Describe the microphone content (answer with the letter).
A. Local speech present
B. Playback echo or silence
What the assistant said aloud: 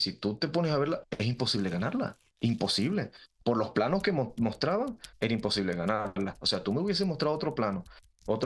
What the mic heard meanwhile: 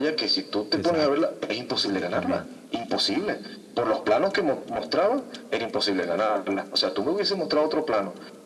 A